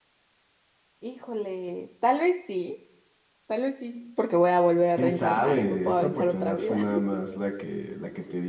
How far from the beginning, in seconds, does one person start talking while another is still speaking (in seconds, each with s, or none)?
5.0 s